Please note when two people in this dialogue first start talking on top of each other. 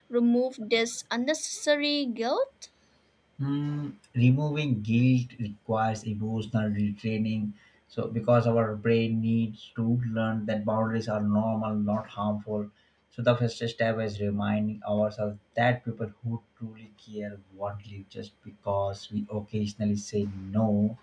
none

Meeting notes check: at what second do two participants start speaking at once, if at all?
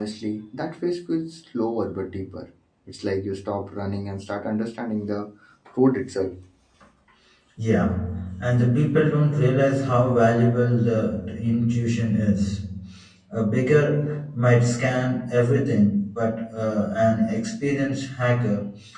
none

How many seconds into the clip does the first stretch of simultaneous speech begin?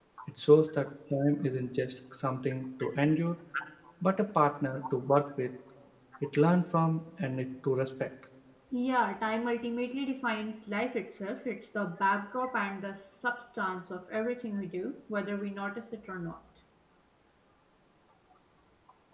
none

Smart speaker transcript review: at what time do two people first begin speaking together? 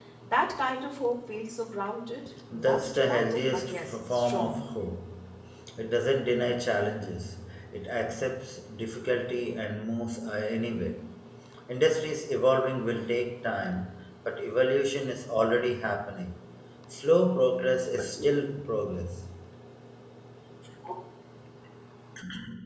2.5 s

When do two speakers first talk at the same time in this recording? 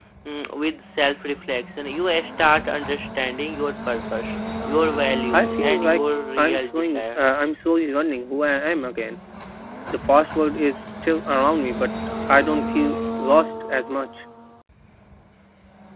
5.3 s

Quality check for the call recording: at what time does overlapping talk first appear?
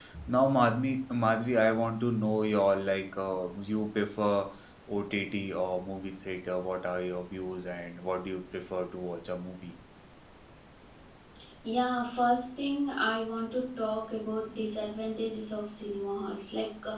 none

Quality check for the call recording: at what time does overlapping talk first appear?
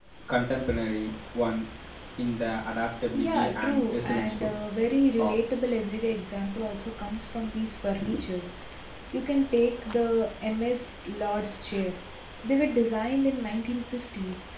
3.1 s

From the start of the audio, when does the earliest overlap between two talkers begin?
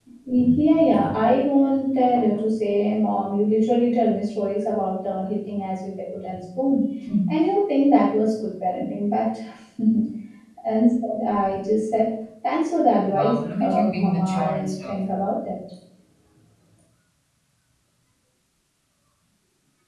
13.1 s

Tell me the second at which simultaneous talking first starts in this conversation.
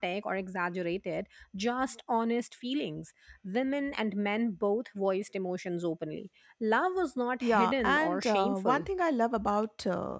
7.4 s

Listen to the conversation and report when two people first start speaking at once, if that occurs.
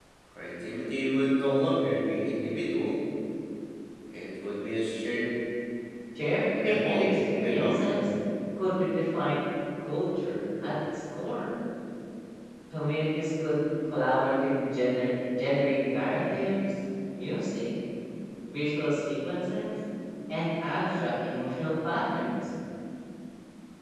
6.6 s

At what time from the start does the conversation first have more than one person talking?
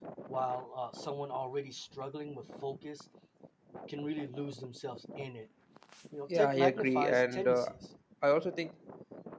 6.3 s

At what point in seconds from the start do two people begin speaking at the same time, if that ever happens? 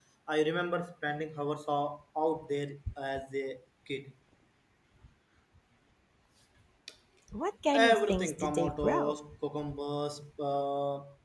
7.9 s

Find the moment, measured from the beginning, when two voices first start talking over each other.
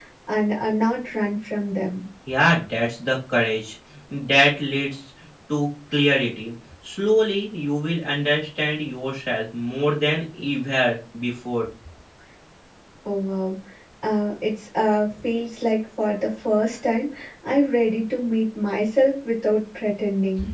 none

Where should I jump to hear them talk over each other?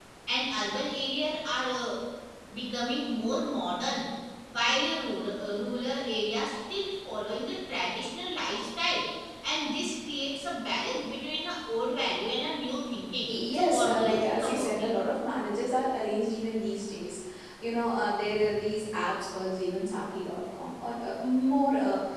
13.3 s

